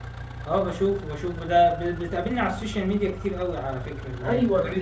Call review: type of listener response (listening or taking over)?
taking over